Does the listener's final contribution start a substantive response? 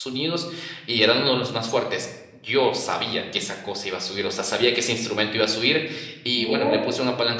No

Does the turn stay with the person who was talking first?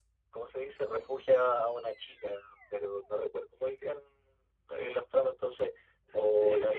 Yes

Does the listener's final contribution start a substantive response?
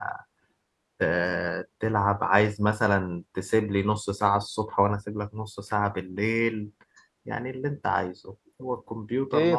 Yes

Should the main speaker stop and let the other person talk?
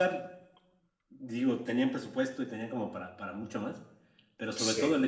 No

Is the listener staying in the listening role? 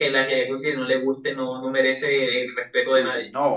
No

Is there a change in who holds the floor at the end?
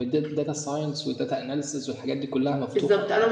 Yes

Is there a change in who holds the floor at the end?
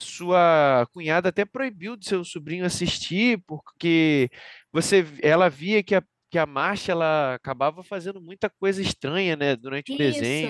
Yes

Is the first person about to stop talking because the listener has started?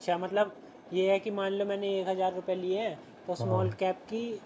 No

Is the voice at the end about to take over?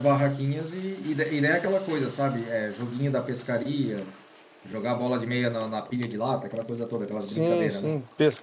Yes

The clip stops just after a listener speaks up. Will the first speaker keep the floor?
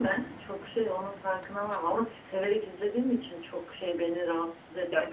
No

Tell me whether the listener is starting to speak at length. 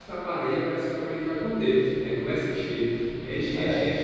No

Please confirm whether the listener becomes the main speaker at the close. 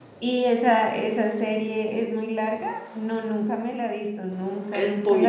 Yes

